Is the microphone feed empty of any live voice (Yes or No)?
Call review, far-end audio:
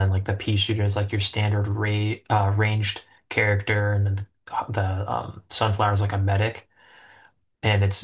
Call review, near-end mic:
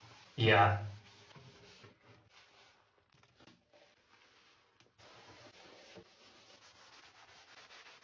No